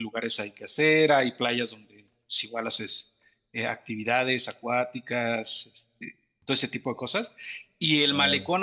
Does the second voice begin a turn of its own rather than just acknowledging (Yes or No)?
No